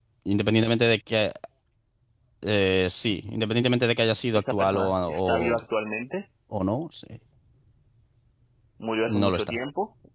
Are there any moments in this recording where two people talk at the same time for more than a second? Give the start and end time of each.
4.3-5.6

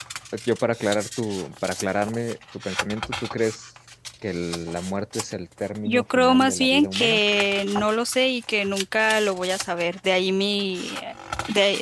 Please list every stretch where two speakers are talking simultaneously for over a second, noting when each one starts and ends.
5.8-7.2

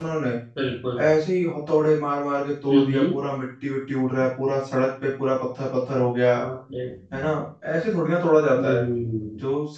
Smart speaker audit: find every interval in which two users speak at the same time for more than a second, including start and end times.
none

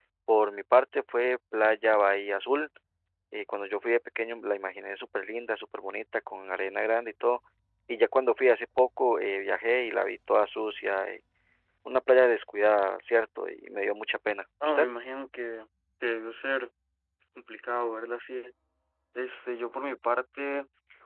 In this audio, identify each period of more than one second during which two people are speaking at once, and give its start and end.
none

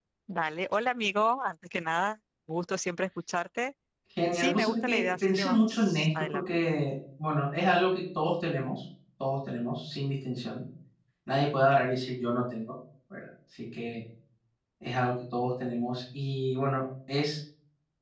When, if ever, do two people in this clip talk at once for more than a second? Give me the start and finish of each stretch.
4.3-6.6

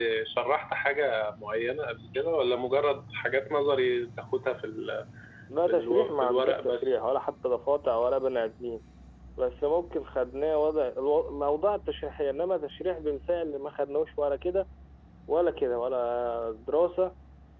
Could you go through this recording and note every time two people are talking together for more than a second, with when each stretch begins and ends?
5.7-7.0

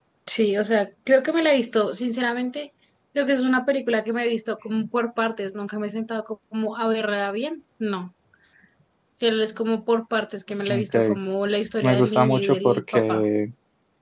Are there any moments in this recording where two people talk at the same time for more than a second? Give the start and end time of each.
11.8-13.2

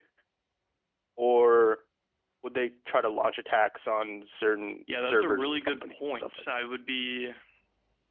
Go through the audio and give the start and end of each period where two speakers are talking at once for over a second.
5.0-6.4

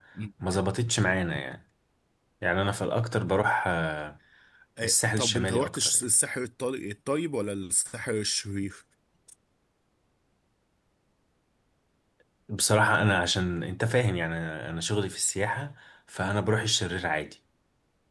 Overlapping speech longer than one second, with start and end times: 4.8-6.0

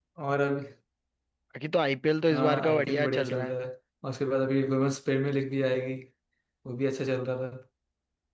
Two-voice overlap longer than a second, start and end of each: 2.3-3.5

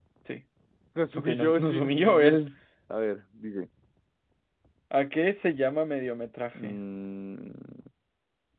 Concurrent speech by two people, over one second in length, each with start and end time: 1.2-2.4

